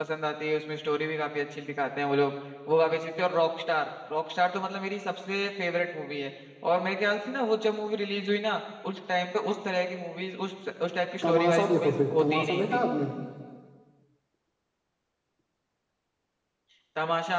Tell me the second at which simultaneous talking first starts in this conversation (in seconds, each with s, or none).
11.2 s